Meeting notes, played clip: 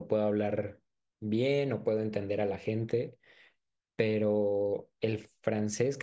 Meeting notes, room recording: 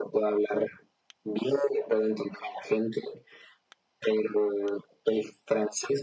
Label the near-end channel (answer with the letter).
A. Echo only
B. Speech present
A